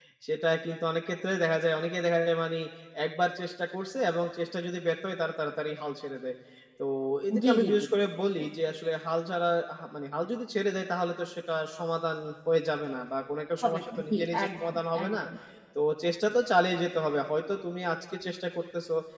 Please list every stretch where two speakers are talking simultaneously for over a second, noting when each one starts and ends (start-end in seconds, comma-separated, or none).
13.6-15.2